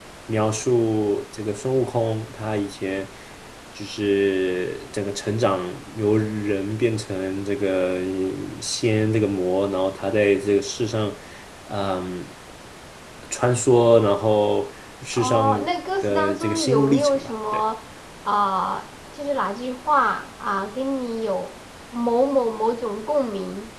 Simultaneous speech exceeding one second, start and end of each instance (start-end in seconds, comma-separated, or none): 16.0-17.6